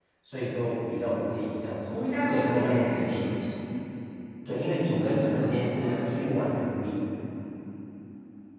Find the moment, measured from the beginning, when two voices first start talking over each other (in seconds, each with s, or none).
1.9 s